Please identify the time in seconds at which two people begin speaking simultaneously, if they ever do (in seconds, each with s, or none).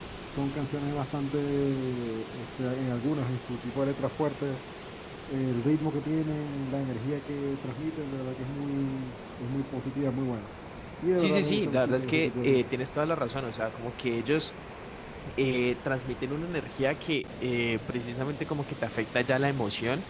11.2 s